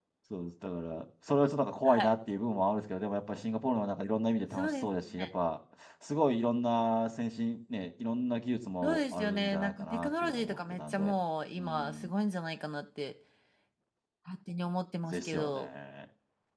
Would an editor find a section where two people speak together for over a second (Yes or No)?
Yes